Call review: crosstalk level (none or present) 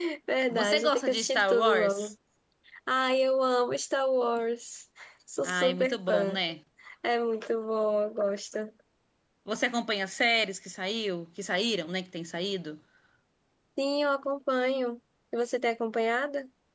present